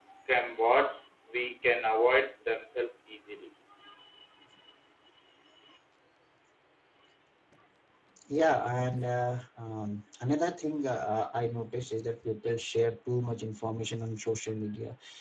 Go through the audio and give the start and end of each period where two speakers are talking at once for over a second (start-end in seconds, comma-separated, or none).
none